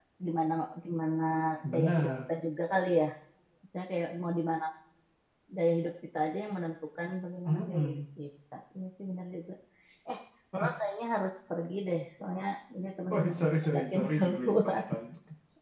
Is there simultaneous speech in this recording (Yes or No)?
Yes